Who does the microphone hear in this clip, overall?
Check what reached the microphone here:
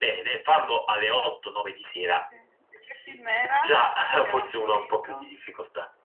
both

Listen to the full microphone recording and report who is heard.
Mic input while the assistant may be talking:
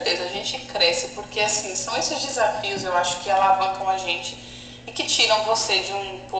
echo only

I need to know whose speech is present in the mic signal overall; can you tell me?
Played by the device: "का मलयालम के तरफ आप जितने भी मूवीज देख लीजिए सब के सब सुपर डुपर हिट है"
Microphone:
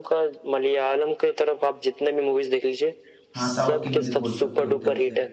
both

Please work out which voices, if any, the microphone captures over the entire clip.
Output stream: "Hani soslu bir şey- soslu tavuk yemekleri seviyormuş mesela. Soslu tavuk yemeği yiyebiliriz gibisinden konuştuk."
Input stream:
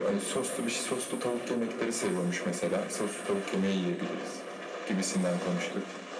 echo only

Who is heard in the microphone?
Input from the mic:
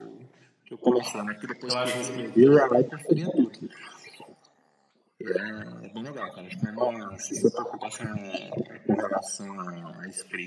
both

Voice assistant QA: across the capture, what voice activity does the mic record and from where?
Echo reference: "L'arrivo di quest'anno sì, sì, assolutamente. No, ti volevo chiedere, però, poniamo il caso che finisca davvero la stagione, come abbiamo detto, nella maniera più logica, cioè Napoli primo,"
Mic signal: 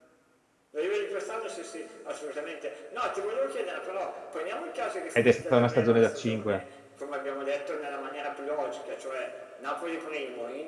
both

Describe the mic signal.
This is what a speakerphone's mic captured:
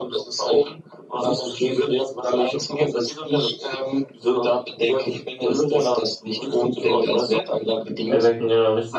both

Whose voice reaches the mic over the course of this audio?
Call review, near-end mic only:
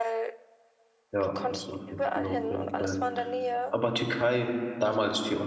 both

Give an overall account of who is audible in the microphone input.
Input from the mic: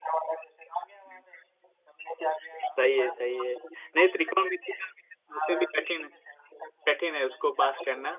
both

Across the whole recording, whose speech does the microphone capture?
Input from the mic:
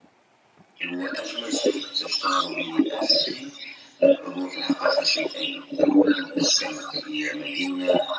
echo only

